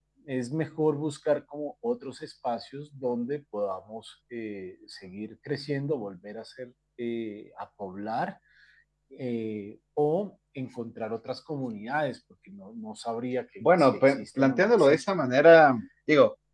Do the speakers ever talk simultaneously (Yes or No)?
Yes